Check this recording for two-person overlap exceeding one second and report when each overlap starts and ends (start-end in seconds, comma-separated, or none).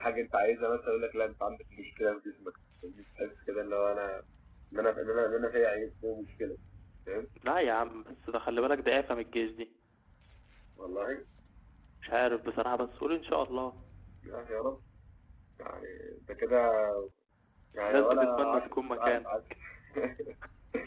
17.8-19.2